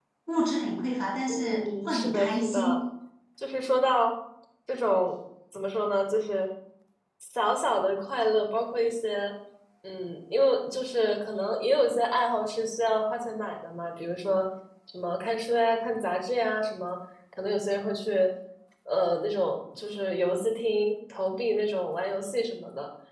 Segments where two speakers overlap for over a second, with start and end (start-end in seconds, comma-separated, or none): 1.3-2.8